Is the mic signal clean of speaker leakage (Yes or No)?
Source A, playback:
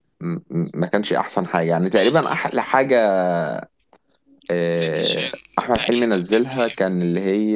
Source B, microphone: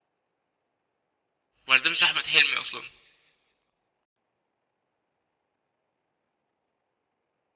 Yes